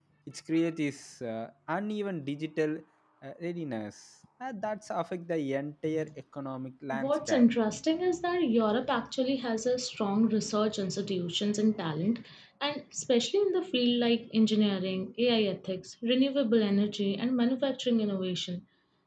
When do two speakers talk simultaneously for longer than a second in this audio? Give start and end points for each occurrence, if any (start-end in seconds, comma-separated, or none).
none